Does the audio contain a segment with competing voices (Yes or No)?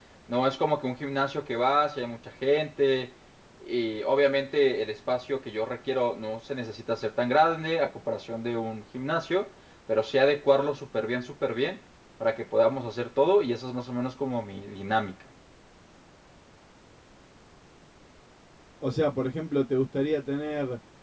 No